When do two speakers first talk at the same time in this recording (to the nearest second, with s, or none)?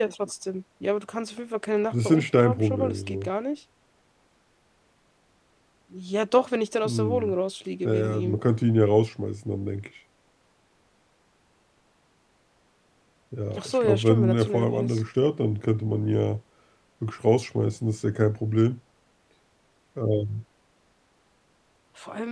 2 s